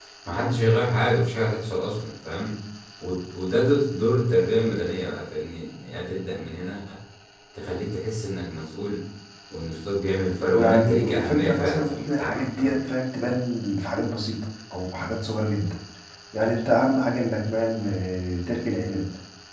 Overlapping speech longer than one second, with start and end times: 10.5-12.8

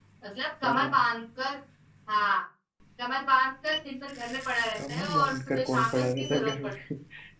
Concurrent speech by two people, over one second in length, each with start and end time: 4.9-6.7

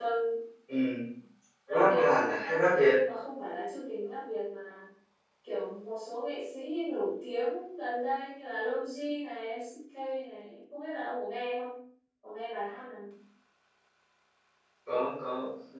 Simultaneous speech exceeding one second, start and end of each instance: 1.7-2.9

